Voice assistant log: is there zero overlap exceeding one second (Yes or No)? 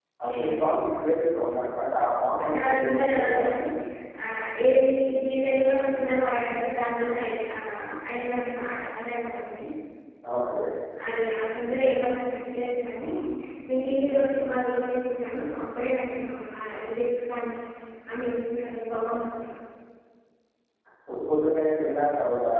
No